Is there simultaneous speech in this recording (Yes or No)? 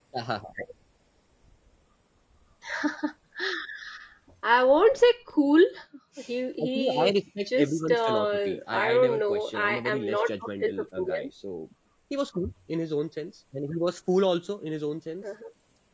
Yes